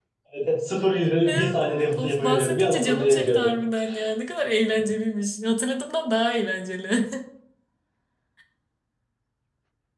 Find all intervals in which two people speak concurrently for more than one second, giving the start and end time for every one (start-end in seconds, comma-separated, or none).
1.3-3.6